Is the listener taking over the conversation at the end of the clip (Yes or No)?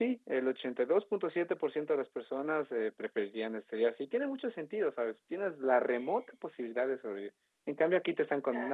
No